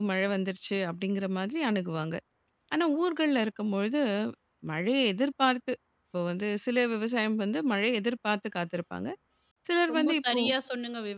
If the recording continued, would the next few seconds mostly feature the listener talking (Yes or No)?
Yes